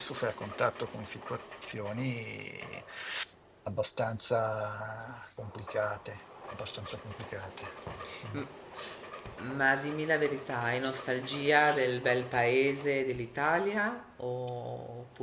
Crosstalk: none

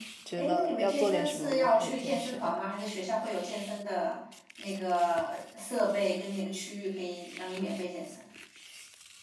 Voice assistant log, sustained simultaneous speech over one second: present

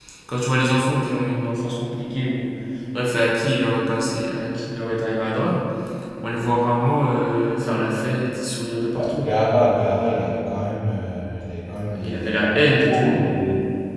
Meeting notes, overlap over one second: present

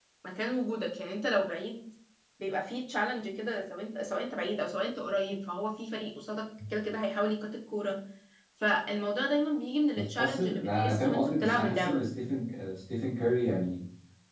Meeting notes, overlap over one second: present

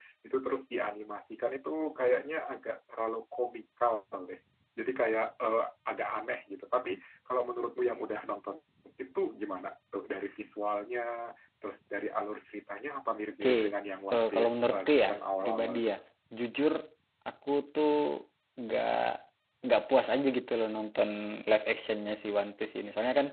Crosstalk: present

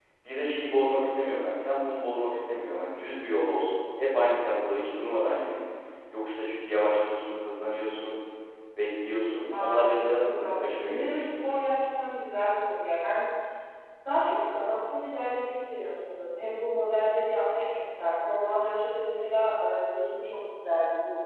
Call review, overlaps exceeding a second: present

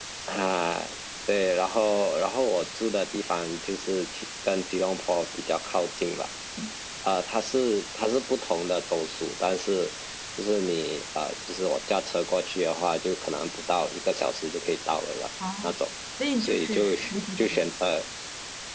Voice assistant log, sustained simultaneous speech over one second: present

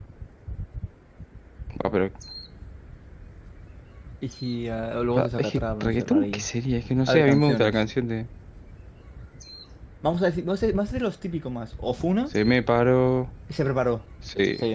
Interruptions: present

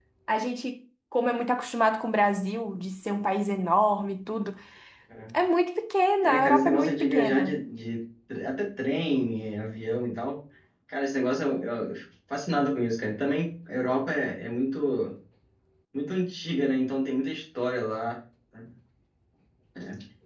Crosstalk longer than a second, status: present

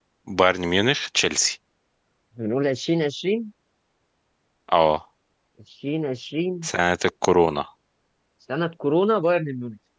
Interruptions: none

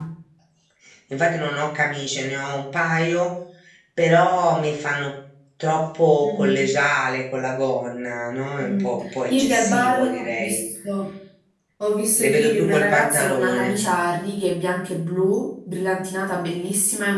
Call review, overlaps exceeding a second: present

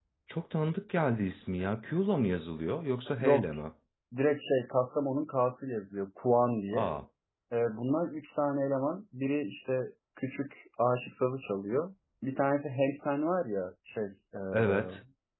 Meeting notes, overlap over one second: none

